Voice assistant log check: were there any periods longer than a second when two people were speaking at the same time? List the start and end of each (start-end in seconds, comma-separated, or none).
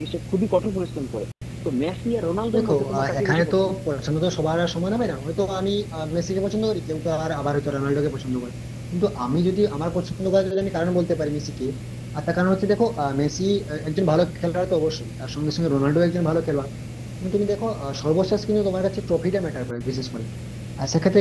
2.5-3.8